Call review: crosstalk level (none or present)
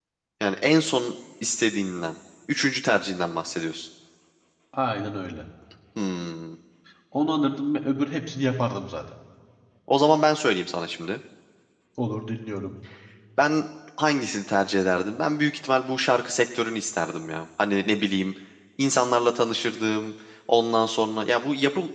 none